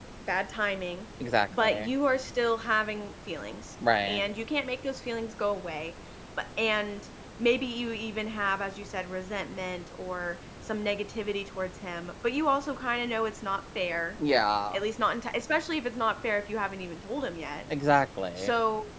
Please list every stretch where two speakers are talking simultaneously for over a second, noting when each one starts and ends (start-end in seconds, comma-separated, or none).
none